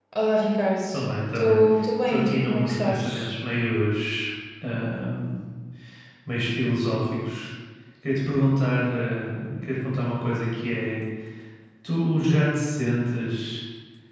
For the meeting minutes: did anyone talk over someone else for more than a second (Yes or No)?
Yes